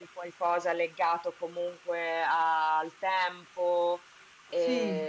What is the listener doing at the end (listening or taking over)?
listening